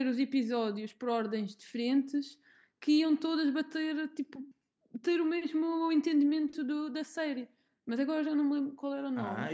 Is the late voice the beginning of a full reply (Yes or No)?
Yes